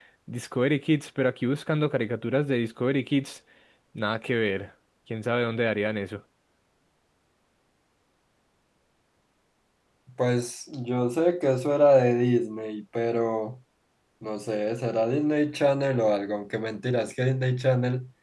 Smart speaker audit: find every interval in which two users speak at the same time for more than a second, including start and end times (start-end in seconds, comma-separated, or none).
none